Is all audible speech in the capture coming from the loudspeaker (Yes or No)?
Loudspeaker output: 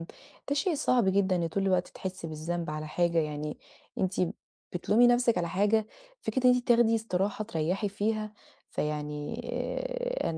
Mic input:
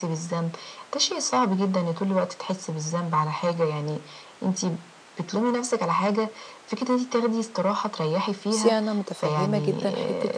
No